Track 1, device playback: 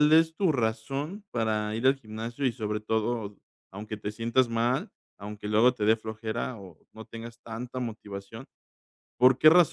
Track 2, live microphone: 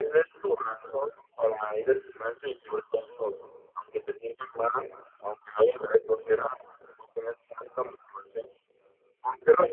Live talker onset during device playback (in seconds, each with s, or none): none